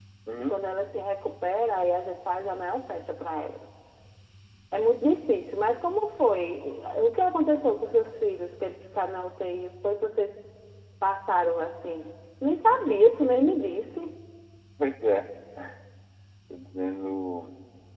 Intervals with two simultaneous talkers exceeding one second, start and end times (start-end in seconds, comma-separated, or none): none